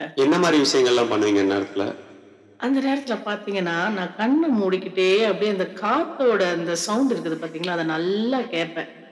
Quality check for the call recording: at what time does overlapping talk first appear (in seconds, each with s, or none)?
none